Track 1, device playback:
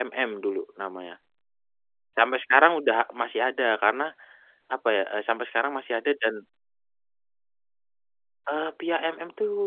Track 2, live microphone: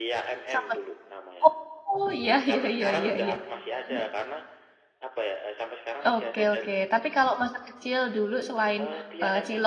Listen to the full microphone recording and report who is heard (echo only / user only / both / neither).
both